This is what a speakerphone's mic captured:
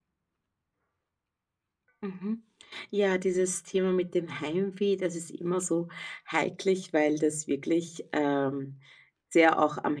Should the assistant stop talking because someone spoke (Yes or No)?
Yes